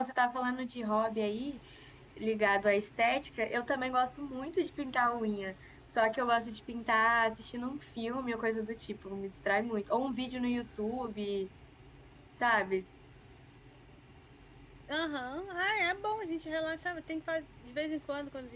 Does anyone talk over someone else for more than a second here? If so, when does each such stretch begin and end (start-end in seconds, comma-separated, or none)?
none